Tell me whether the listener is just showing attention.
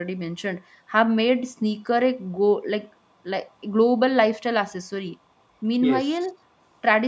Yes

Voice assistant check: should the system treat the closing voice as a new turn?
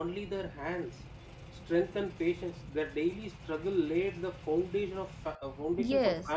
No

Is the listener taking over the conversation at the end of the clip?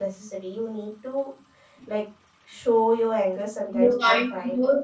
Yes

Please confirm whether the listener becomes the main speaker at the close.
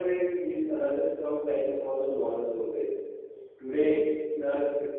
No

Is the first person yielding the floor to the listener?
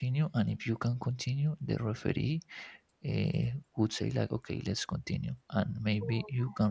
No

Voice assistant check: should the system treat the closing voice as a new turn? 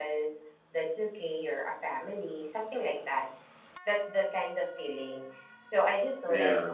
No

